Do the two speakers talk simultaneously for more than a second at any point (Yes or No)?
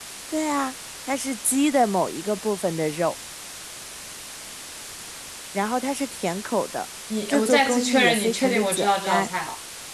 Yes